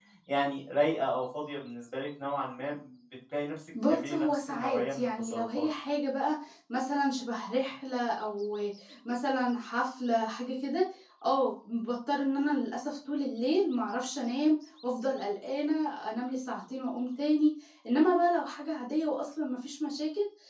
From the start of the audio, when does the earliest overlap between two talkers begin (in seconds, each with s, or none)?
3.7 s